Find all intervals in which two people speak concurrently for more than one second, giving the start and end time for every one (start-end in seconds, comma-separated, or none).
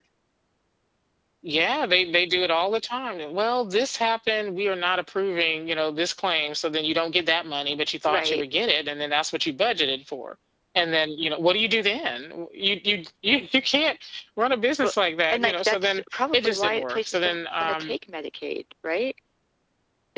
15.3-17.9